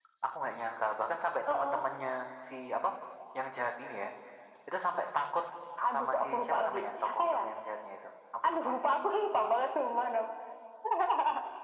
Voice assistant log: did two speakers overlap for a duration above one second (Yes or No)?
Yes